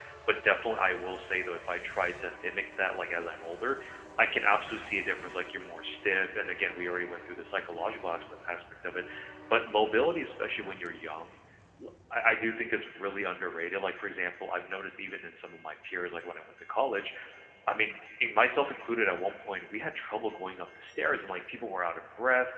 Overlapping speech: No

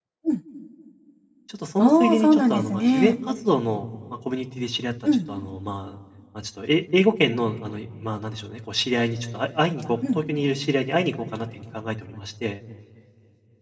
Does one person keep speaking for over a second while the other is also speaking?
Yes, from 1.8 s

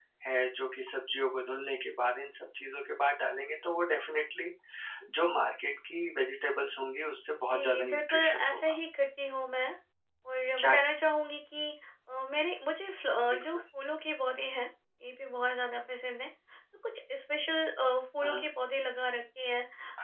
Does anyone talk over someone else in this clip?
Yes, from 7.5 s

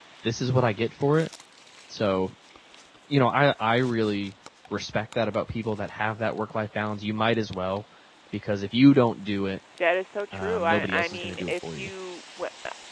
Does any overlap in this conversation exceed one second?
Yes, from 10.3 s

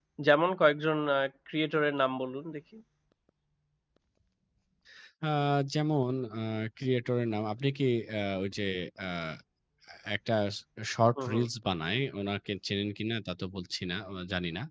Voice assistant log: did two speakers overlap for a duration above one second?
No

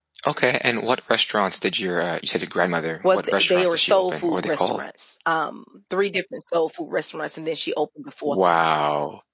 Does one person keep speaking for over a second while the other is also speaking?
Yes, from 3.1 s

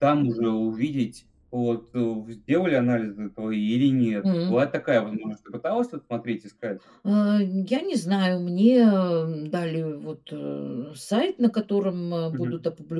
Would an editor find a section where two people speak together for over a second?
No

